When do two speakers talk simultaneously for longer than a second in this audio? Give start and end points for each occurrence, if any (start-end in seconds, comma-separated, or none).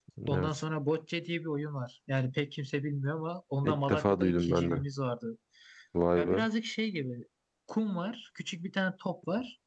3.6-4.8